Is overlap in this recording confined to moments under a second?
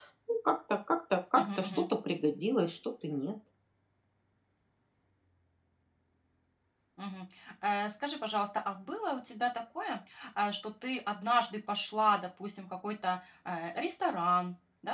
Yes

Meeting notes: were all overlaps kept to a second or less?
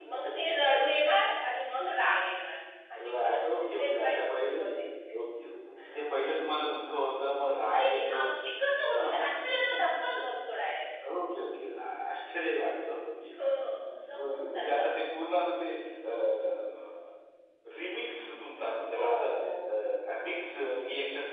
No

